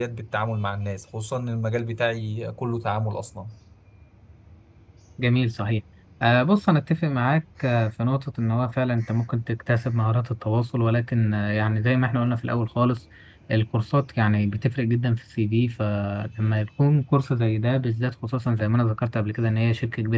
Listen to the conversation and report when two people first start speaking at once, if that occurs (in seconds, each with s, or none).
none